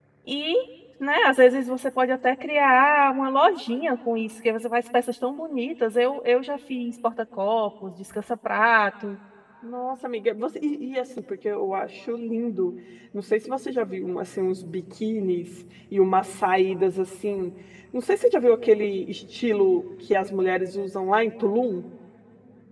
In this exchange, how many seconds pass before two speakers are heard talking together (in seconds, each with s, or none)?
none